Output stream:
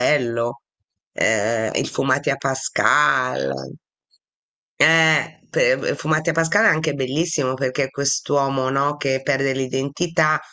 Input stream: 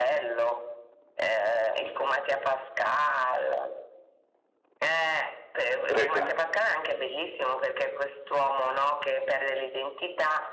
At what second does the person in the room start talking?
5.9 s

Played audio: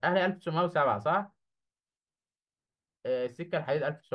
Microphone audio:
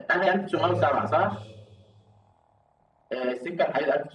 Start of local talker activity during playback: 0.5 s

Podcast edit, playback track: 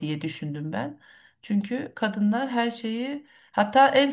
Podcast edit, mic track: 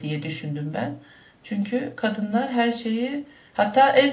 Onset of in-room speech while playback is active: none

